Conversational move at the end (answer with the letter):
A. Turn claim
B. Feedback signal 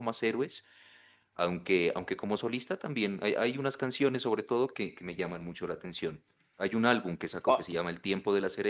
B